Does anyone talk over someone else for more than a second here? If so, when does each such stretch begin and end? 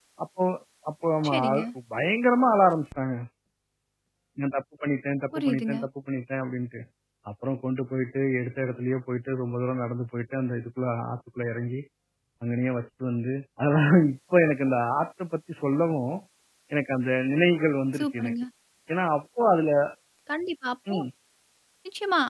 none

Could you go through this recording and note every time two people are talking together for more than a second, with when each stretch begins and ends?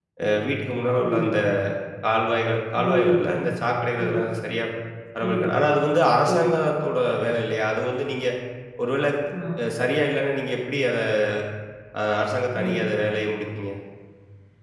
none

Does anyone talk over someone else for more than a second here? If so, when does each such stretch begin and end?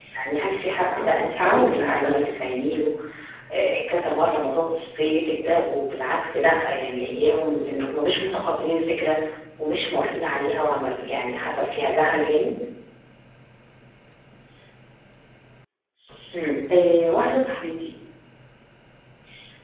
0.7-2.2

